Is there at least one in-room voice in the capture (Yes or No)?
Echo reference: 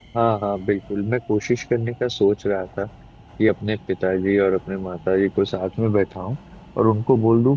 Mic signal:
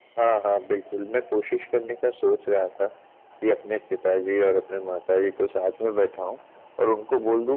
No